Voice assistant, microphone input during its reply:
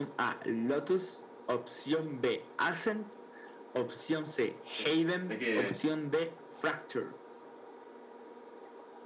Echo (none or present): present